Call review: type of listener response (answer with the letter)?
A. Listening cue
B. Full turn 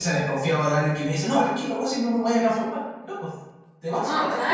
B